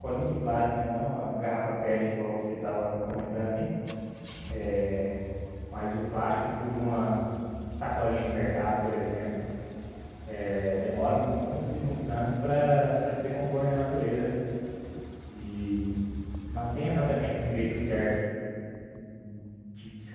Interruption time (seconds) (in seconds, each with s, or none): none